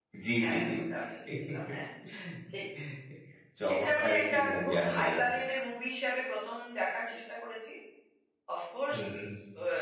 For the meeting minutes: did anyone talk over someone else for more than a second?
Yes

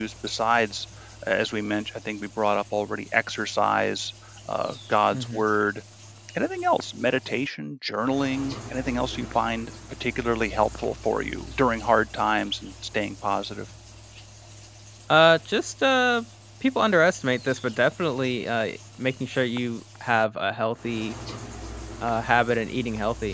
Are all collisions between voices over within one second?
Yes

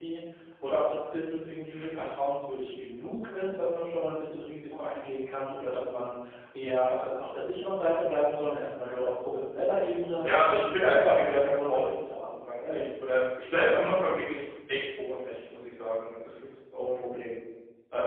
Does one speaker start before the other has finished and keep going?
Yes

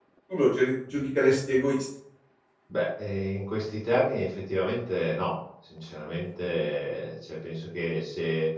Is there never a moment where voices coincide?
Yes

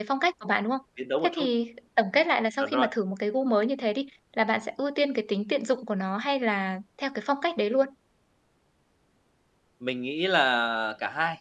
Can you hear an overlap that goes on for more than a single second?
No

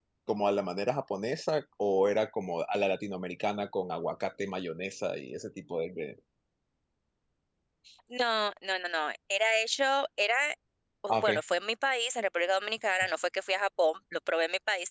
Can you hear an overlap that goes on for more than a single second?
No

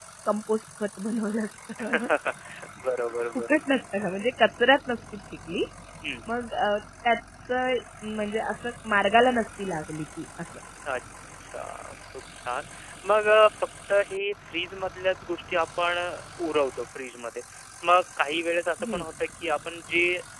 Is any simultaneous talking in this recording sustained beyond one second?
No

